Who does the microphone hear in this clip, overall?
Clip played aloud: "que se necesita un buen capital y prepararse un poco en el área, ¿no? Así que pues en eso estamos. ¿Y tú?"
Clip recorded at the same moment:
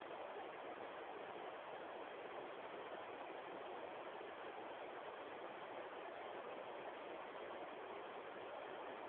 neither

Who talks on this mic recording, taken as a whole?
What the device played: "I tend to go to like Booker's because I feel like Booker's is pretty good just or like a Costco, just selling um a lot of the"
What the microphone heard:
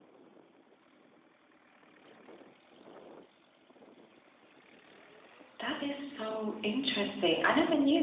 user only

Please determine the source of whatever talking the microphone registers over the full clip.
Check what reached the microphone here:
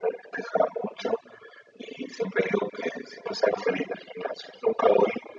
echo only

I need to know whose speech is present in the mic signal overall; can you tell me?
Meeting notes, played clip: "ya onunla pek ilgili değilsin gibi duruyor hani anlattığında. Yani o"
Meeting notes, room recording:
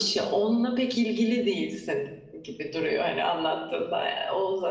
echo only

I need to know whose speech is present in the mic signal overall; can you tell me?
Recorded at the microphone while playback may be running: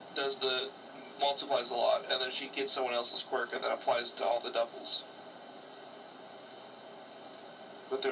echo only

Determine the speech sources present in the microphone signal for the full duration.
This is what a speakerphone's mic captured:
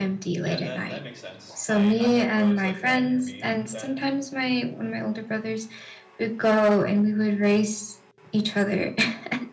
both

